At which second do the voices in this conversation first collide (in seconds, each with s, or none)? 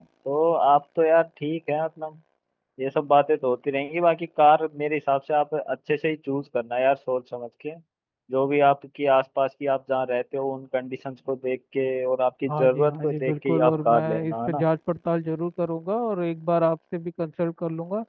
12.4 s